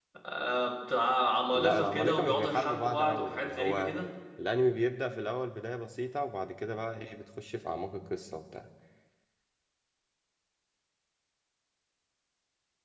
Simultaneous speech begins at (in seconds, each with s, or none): 1.5 s